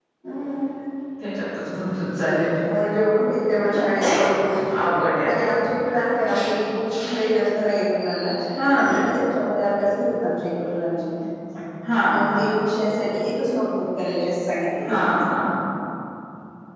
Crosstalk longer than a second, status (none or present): none